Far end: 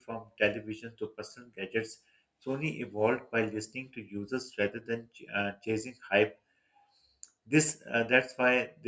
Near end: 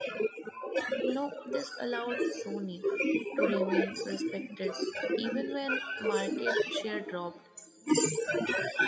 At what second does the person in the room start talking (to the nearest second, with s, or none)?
1 s